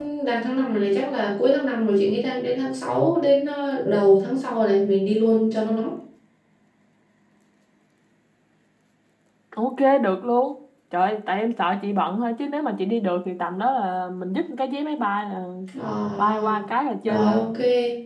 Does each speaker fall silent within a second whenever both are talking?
Yes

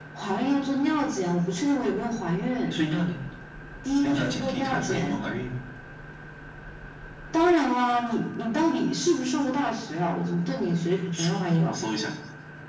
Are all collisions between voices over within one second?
No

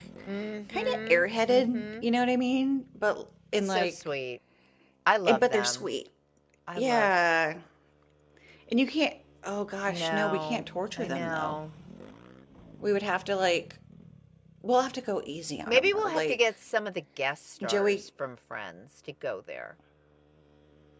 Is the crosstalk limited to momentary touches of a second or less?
No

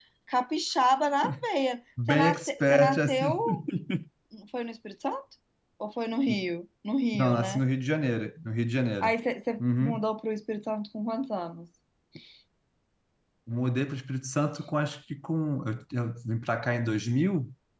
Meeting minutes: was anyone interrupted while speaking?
Yes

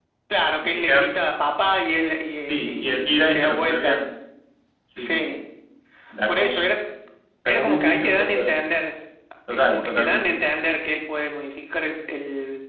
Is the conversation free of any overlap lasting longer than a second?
No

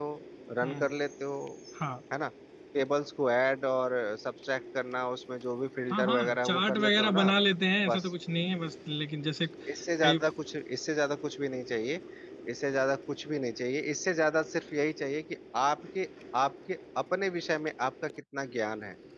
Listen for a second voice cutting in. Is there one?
Yes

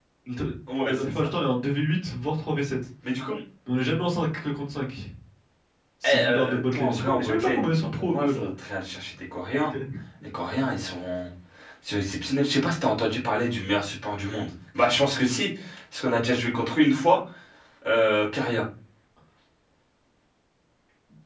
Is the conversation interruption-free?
No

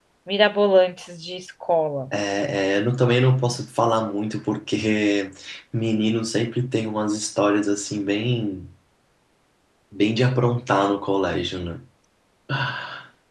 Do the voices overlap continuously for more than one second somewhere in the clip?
No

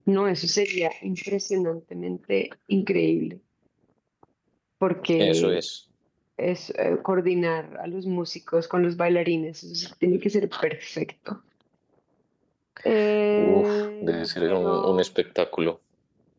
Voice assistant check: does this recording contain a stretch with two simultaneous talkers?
Yes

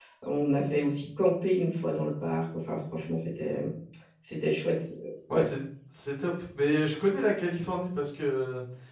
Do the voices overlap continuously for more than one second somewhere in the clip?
No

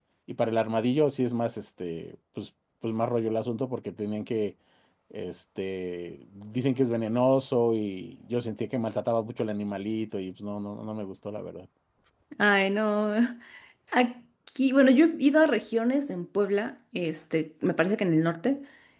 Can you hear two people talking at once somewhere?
No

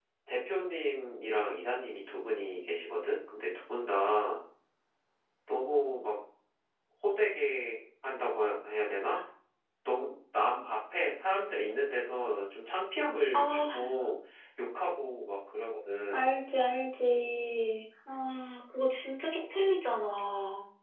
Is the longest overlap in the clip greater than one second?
No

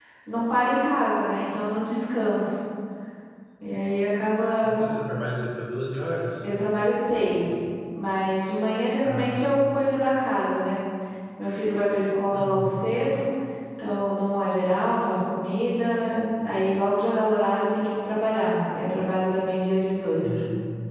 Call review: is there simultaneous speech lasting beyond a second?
No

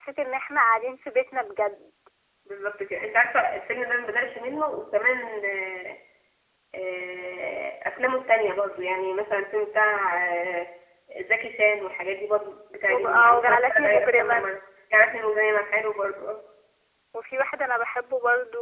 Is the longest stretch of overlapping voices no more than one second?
No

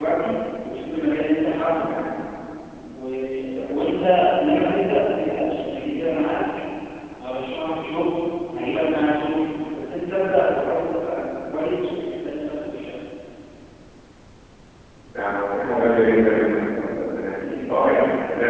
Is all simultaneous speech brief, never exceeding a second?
Yes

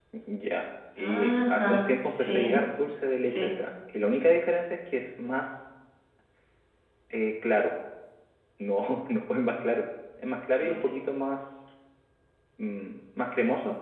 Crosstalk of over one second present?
Yes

